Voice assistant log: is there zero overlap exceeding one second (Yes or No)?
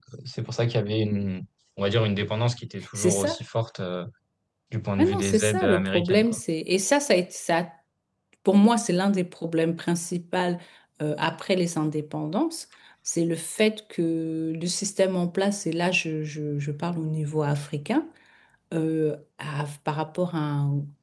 No